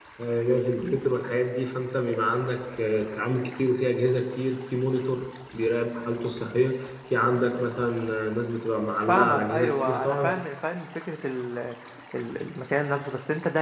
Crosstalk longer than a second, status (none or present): present